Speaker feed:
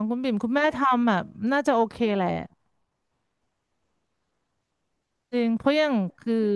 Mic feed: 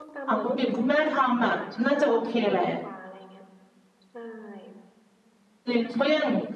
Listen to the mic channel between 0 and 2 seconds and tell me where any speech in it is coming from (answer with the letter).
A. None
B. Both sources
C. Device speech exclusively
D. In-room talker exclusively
B